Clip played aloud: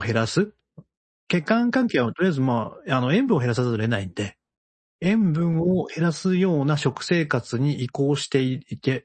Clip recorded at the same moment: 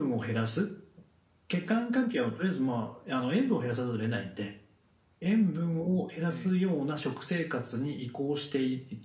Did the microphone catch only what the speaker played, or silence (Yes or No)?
No